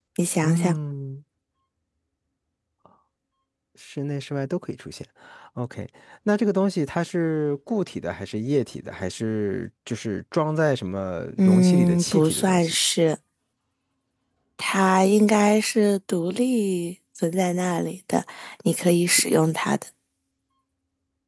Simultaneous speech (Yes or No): Yes